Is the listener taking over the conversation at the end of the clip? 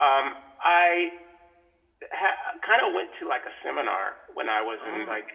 No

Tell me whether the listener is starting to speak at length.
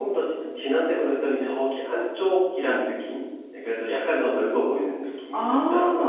Yes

